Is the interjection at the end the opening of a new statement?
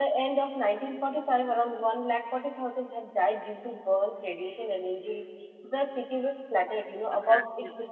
No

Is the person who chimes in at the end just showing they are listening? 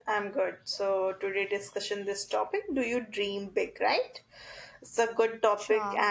Yes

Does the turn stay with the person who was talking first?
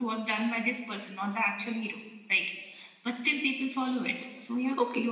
No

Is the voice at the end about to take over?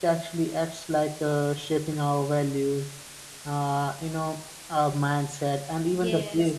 Yes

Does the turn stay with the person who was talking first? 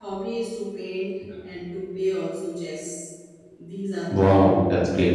No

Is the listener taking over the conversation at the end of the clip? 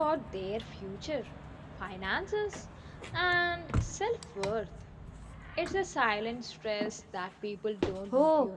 Yes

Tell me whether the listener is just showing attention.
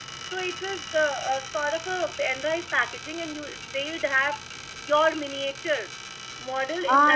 No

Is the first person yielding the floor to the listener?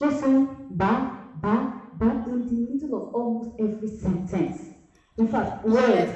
Yes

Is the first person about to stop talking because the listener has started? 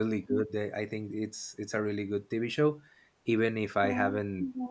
No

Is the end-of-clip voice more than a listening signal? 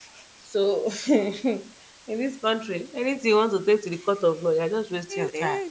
Yes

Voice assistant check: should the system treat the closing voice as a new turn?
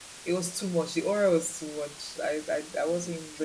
No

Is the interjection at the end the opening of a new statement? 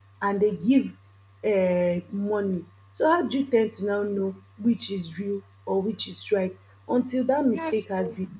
No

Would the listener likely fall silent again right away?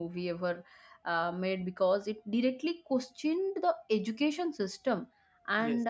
Yes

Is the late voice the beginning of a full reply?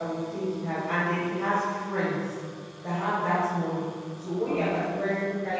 No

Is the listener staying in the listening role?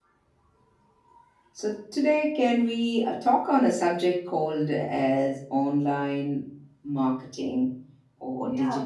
Yes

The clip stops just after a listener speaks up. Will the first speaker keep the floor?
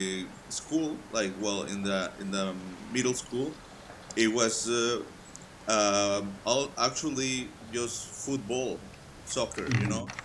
Yes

